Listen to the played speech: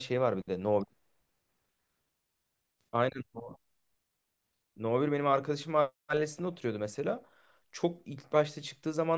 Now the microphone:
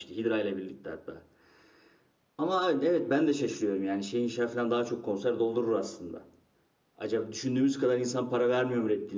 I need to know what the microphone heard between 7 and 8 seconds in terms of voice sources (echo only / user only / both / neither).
user only